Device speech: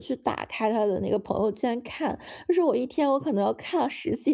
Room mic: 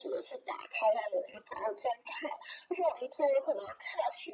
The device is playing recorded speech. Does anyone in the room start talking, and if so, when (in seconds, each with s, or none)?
none